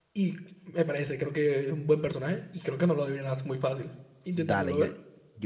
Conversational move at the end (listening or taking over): taking over